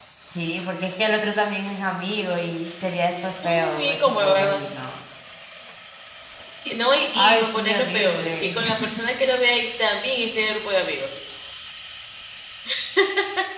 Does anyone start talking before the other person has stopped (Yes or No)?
Yes